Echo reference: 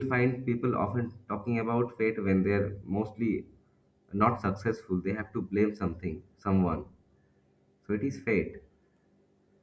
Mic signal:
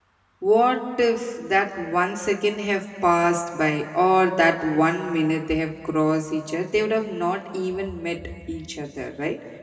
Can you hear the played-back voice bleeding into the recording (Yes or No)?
No